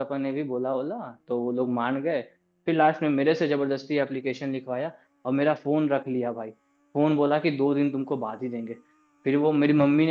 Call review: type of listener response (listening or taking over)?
listening